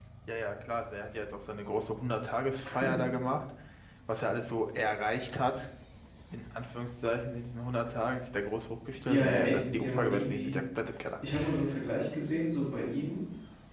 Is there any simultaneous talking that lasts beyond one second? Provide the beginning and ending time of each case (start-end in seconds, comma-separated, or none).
9.1-10.5